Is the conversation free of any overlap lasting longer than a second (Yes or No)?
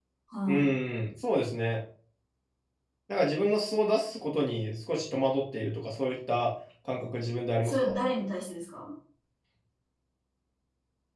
Yes